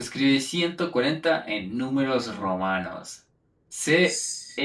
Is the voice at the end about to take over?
No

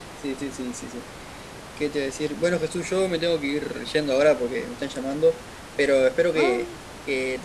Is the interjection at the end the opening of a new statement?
No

